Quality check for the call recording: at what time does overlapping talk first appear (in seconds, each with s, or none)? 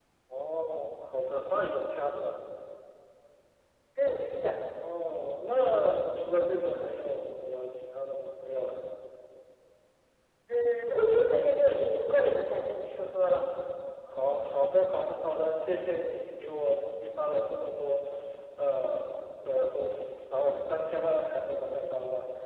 none